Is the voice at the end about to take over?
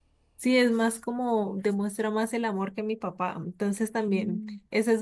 No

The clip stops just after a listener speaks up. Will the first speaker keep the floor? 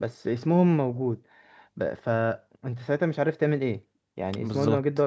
Yes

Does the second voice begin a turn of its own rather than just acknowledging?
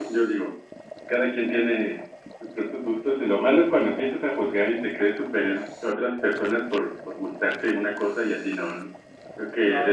Yes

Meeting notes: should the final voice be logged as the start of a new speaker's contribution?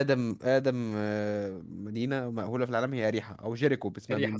Yes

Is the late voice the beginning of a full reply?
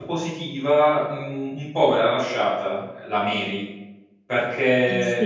No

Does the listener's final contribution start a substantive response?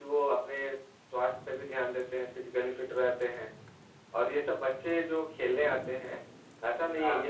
No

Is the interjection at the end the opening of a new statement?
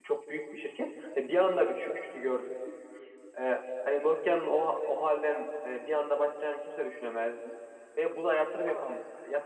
No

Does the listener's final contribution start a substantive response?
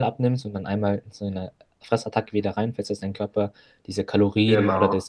No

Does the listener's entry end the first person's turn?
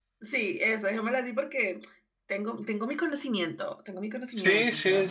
Yes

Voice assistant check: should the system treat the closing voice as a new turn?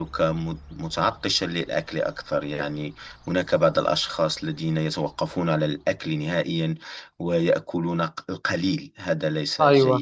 Yes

